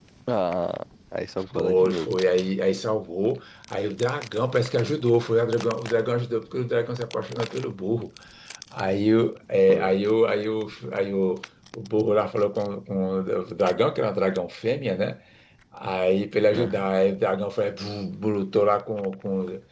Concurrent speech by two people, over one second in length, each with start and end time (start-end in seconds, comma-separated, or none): none